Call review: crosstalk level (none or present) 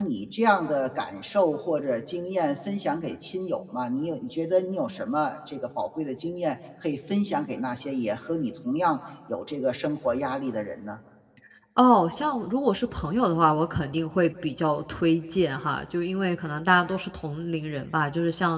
none